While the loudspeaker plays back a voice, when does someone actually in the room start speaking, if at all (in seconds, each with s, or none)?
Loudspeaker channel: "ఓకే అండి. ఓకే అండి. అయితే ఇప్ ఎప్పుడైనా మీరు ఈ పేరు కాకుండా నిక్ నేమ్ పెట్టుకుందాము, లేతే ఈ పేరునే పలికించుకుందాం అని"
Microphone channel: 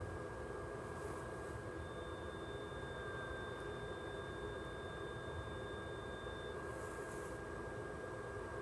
none